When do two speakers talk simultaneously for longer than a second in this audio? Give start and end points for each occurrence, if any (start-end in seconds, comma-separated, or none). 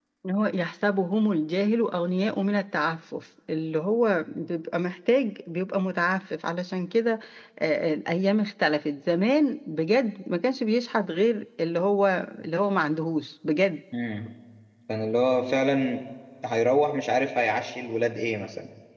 none